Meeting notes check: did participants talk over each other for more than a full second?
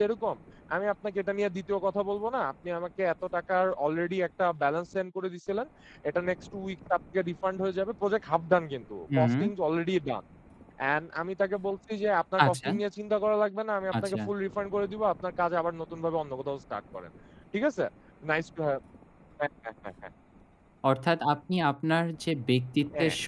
No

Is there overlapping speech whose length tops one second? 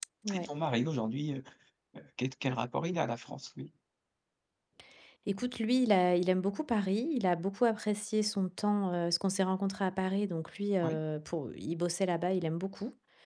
No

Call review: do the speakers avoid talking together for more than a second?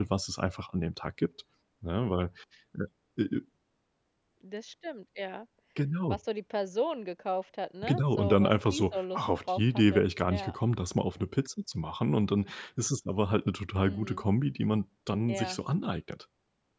No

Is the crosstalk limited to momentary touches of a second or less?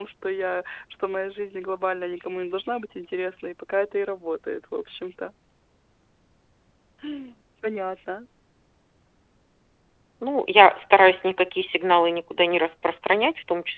Yes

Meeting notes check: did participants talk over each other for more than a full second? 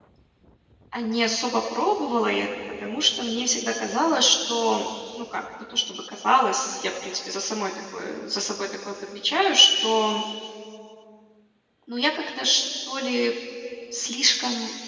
No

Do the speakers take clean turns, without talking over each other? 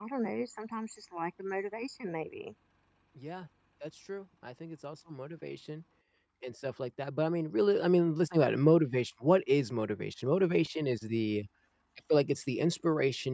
Yes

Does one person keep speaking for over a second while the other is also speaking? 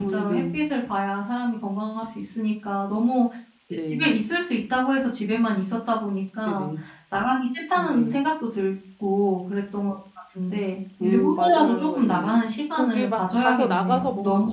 Yes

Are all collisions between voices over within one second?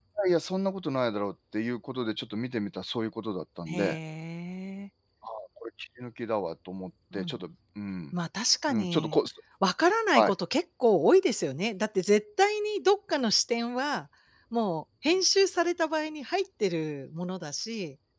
Yes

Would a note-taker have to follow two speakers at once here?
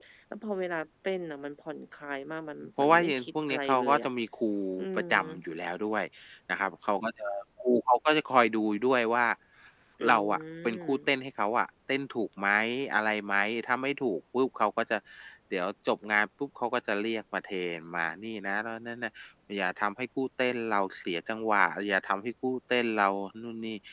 Yes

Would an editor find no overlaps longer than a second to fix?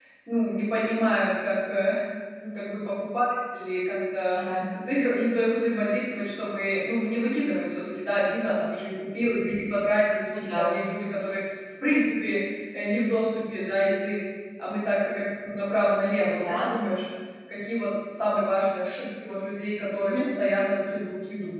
Yes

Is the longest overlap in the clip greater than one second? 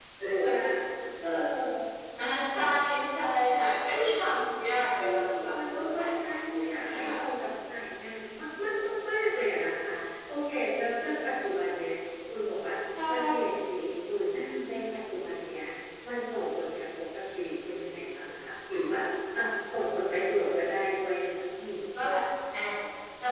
Yes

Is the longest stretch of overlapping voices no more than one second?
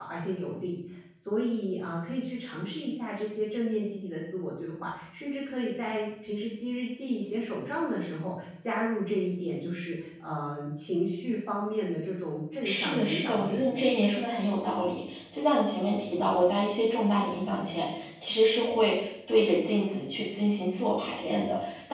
No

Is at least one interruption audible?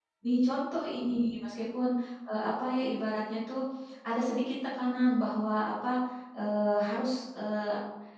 No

